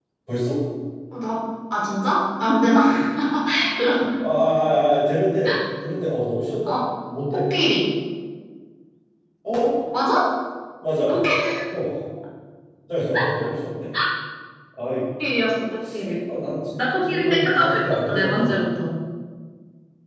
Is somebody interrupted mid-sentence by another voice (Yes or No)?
Yes